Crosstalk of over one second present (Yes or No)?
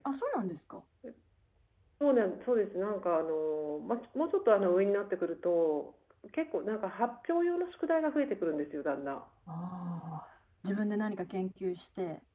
No